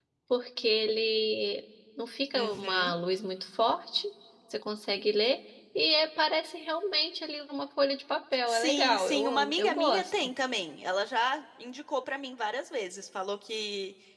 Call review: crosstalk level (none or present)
present